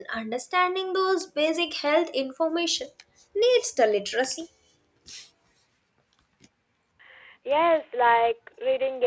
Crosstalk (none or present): none